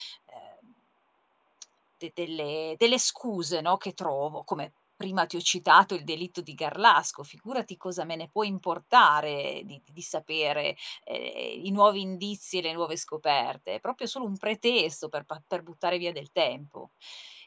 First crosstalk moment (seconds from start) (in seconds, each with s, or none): none